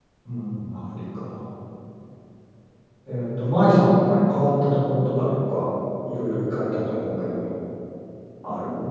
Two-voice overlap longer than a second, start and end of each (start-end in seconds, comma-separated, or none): none